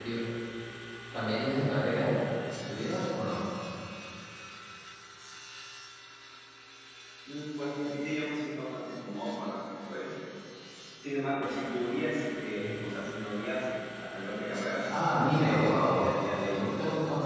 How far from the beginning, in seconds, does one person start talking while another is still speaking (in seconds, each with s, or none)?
15.1 s